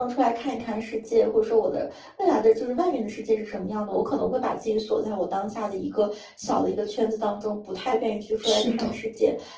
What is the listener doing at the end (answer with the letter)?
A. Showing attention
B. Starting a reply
A